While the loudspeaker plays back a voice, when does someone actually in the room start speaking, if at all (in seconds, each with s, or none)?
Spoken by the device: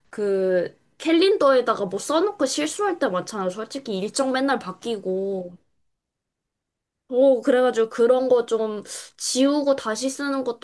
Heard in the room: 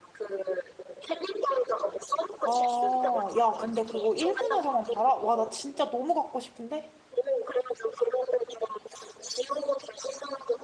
2.4 s